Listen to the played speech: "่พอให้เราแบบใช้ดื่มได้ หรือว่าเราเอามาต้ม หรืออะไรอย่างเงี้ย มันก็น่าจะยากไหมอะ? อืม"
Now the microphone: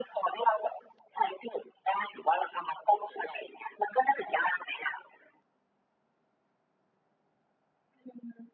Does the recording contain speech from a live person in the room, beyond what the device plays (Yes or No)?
No